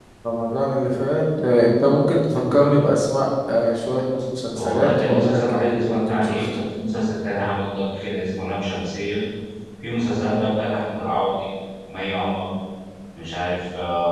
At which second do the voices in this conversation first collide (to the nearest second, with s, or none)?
5 s